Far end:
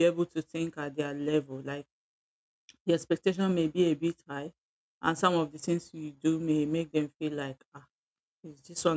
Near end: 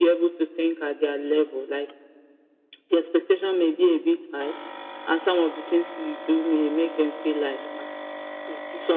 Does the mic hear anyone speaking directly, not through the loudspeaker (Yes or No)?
No